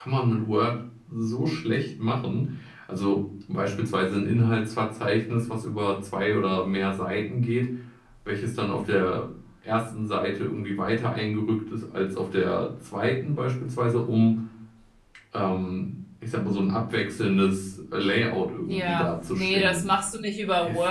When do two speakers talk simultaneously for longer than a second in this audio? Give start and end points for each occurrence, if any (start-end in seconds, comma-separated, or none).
18.6-19.8